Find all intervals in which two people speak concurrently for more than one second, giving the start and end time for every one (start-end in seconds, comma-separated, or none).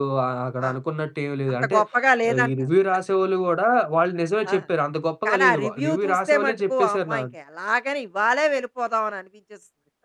5.2-7.3